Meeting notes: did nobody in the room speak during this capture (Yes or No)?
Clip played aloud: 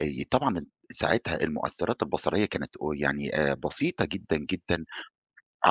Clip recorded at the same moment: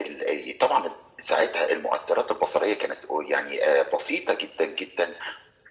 Yes